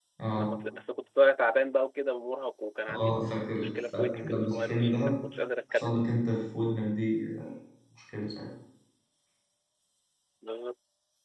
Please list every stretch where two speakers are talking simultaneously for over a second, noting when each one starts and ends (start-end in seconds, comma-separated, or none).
3.5-5.0